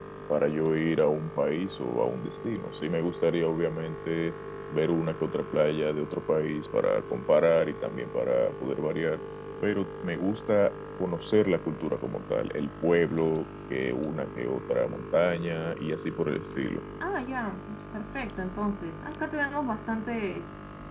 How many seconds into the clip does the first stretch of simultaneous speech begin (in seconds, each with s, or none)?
none